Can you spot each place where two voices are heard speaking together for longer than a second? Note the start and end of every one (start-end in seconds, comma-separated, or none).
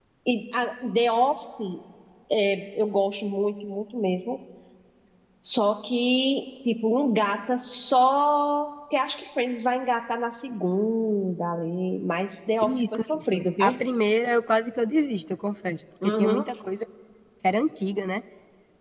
12.6-13.8